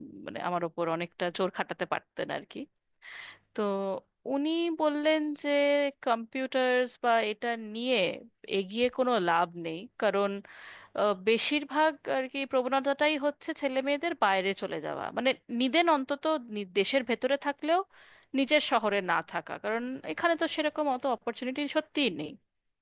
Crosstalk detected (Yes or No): No